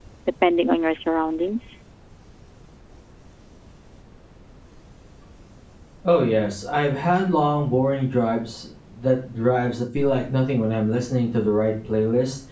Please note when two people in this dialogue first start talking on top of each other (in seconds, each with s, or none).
none